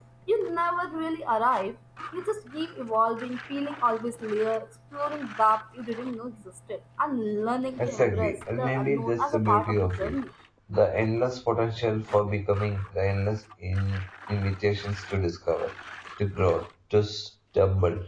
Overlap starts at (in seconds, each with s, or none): 7.8 s